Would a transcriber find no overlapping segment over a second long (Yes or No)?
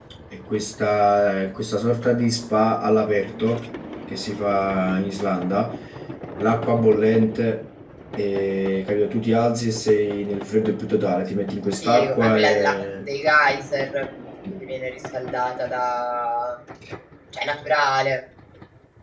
No